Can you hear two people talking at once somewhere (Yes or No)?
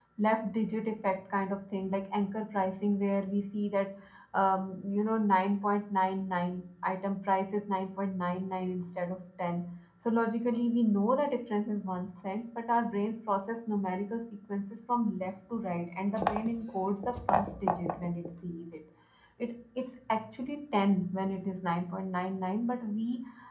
No